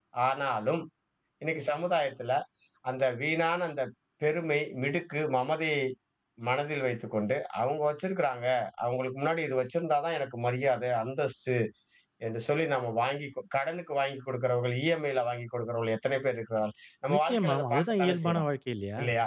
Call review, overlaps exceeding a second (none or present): present